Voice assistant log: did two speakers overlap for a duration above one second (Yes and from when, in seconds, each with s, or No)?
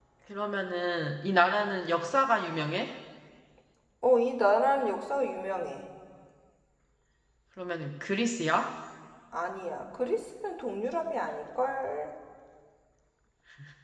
No